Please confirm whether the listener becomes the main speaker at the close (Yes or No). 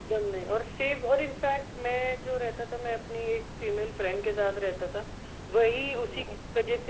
No